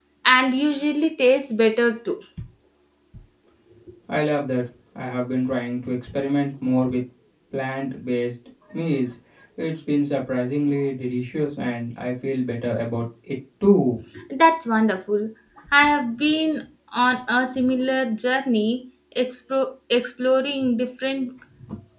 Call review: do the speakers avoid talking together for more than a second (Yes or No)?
Yes